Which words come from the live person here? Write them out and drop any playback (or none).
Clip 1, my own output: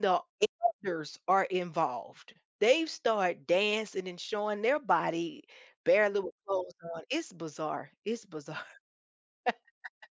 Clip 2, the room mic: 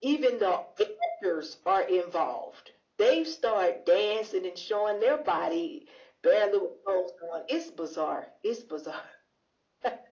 none